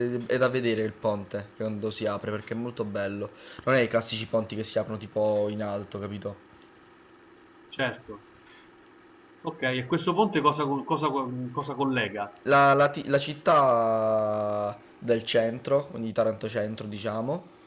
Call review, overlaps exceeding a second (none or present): none